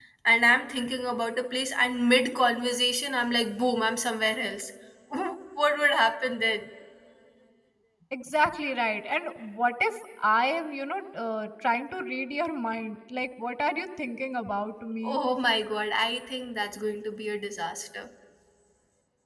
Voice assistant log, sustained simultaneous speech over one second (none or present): none